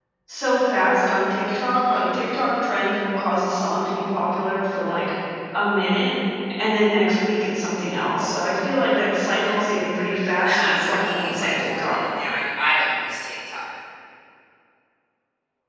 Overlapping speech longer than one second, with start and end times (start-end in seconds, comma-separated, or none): 10.4-12.0